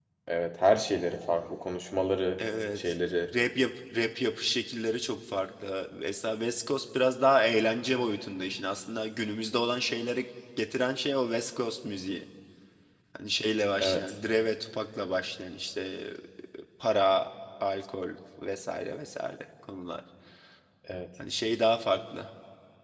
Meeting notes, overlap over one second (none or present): none